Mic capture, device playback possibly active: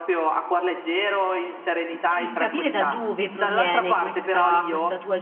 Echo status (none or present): present